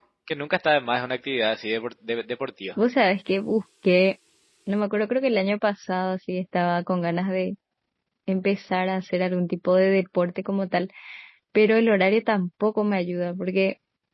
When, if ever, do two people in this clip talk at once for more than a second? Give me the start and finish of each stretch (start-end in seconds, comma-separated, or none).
none